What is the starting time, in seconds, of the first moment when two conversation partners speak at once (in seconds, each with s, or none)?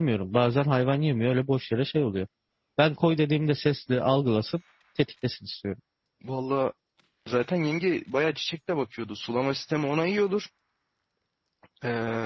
none